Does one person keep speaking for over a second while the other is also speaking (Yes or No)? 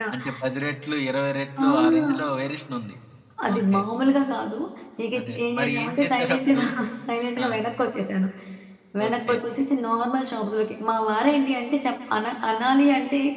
Yes